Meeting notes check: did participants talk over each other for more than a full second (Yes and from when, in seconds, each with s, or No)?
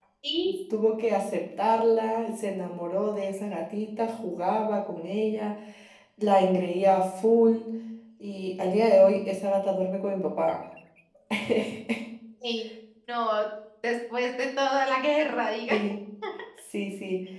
No